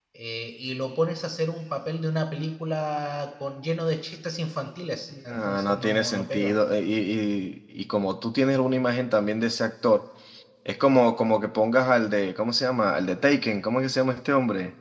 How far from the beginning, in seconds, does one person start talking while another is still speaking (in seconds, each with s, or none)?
5.1 s